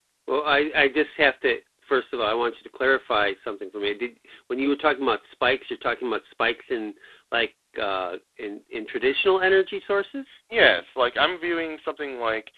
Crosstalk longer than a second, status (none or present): none